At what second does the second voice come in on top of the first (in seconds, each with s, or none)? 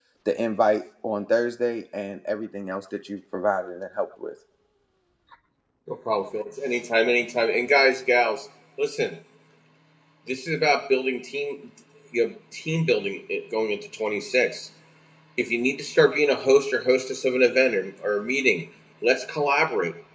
none